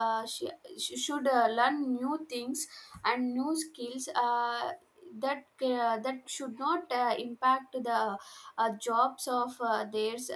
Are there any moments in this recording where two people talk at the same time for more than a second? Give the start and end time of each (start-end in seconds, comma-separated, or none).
none